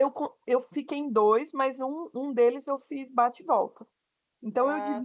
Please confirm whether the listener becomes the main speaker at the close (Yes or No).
No